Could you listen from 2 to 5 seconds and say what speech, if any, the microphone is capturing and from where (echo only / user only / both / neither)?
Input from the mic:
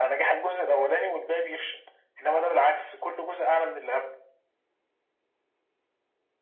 echo only